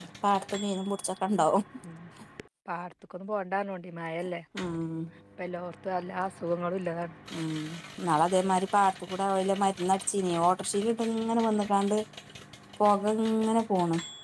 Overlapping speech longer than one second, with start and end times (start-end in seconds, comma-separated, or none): none